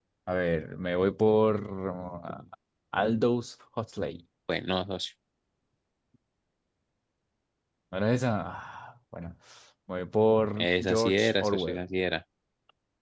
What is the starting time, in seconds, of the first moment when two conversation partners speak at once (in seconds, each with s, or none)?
10.6 s